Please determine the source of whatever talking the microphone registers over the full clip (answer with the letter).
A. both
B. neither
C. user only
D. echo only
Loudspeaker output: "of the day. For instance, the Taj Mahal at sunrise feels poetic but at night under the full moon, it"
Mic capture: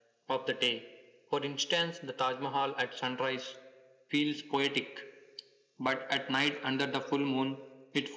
D